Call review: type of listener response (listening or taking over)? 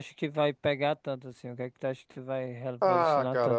taking over